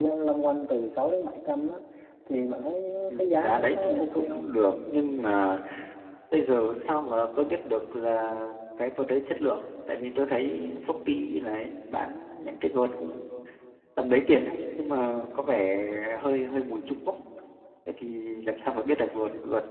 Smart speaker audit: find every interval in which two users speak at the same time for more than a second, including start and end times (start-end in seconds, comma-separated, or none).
3.1-4.4